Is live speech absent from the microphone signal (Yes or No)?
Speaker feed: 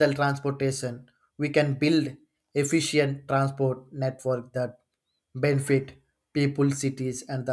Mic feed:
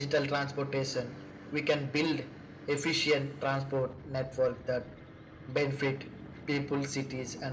Yes